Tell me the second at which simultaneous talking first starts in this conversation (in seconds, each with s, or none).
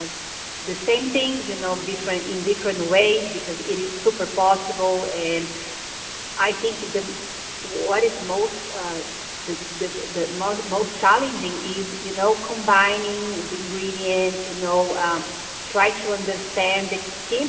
none